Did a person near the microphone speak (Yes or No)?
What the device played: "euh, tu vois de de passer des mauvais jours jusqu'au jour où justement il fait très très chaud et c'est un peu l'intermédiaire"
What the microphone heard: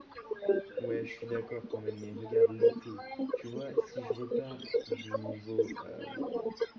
Yes